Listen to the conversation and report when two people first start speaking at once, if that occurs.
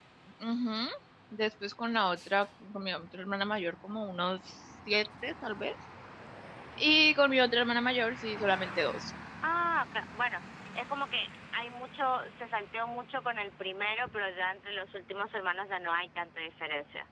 none

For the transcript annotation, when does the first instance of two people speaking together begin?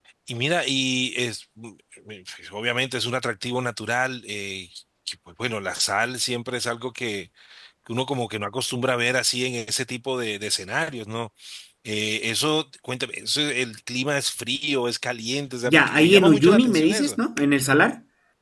16 s

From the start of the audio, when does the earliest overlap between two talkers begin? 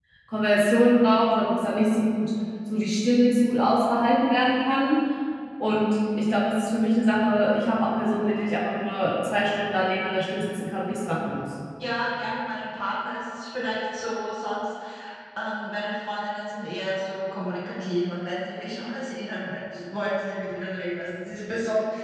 none

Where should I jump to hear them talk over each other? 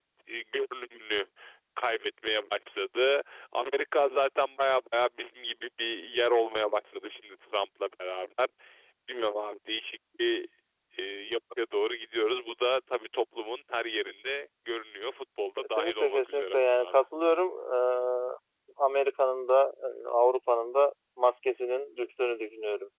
16 s

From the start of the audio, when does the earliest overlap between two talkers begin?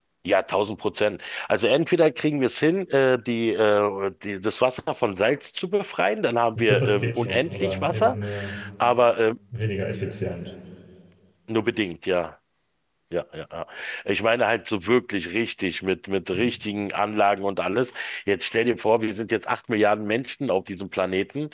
7 s

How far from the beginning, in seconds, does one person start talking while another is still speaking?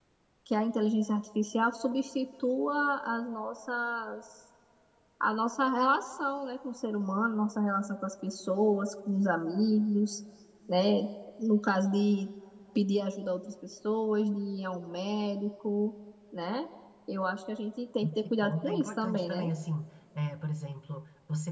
18 s

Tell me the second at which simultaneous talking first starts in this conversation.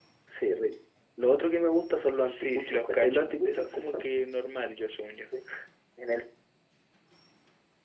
2 s

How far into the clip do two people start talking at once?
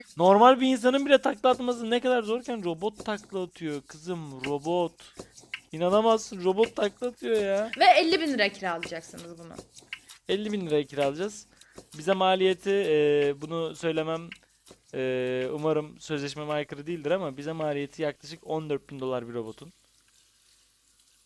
none

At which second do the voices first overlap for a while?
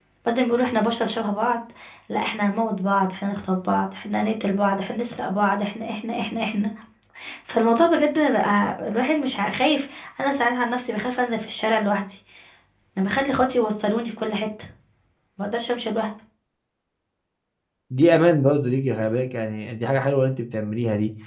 none

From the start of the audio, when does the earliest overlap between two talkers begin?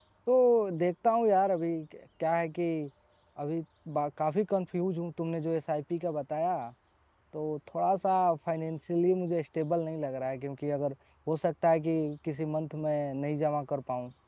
none

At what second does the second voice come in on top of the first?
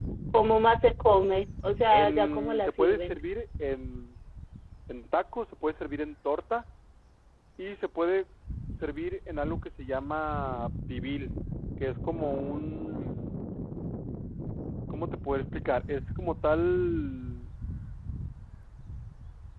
2 s

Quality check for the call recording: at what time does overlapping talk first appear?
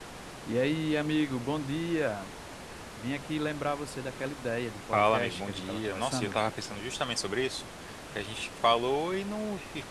5 s

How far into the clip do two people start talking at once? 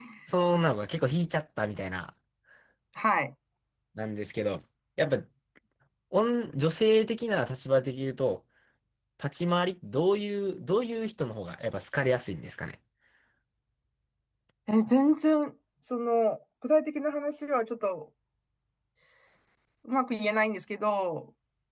none

